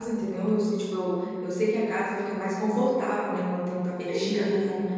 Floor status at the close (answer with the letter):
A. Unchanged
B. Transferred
A